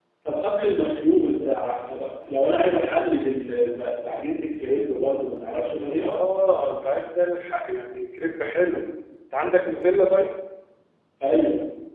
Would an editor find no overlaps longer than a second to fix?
Yes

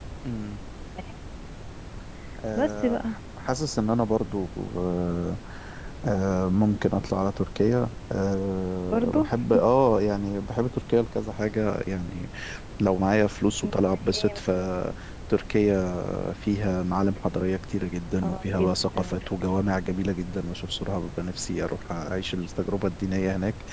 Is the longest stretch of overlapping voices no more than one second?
No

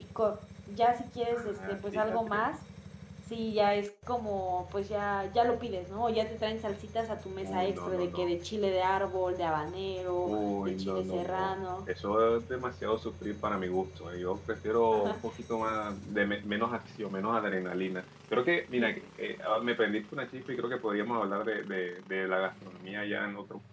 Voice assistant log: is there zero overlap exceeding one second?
No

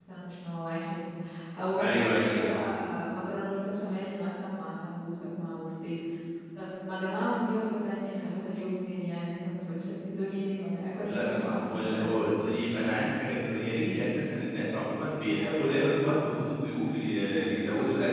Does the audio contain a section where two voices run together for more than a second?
Yes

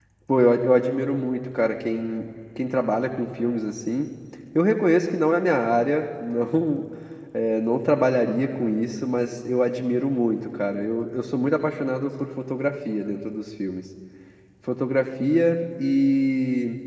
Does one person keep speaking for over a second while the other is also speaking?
No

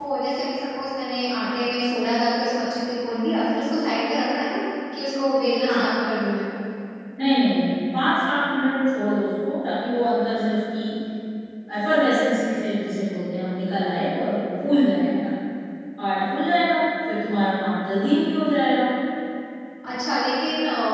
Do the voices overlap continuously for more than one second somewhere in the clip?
No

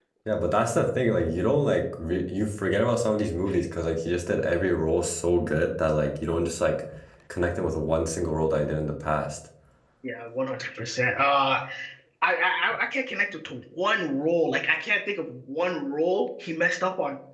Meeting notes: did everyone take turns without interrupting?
Yes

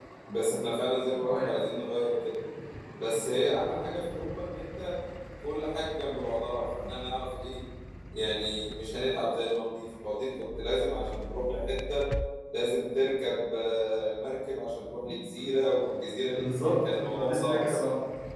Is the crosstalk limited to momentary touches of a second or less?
No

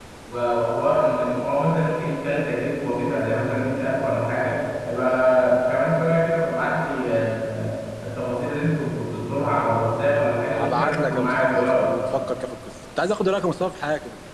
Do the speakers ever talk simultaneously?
Yes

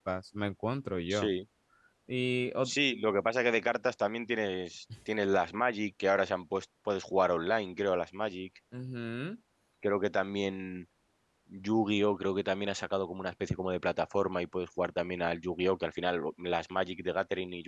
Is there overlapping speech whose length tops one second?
No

